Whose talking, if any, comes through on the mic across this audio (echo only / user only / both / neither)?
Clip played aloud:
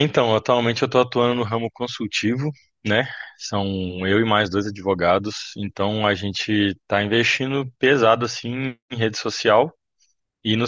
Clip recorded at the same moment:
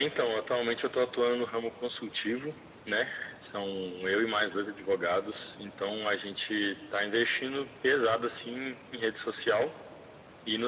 echo only